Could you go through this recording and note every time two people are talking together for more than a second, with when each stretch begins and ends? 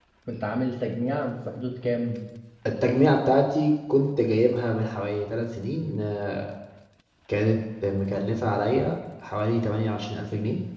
none

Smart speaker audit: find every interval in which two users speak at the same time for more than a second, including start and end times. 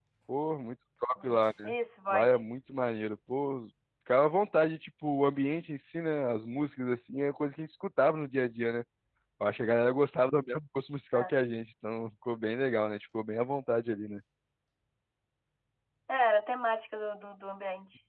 none

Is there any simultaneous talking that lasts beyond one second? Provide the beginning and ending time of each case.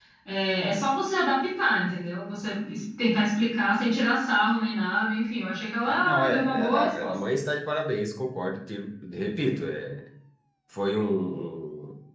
5.8-7.2

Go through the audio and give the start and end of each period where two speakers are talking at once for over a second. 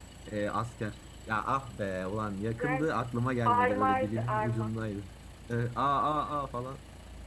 3.5-4.7

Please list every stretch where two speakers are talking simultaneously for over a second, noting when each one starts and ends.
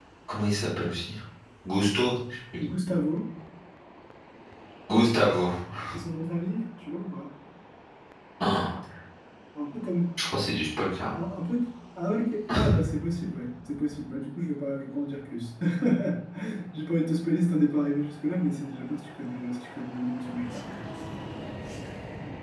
none

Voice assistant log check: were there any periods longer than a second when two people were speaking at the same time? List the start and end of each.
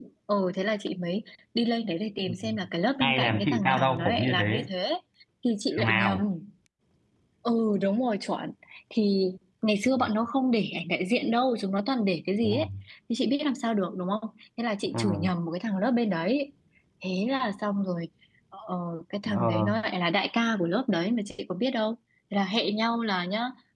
3.0-4.7

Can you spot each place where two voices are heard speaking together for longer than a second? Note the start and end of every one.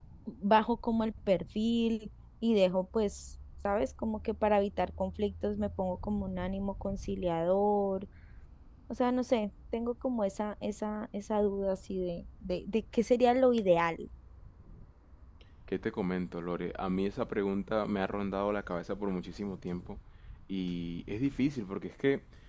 none

